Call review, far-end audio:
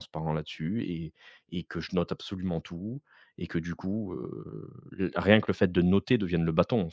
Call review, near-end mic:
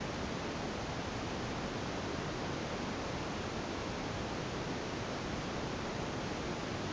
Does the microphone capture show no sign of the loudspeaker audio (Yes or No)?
Yes